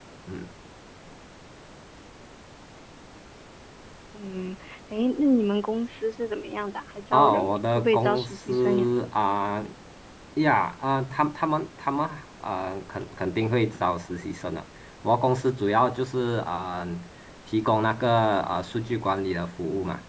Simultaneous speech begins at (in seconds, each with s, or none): 7.1 s